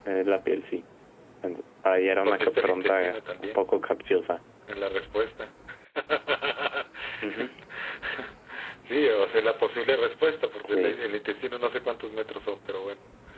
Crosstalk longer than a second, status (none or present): present